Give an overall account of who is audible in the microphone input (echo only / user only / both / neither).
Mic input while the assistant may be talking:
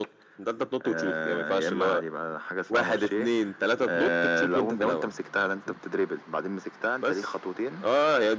echo only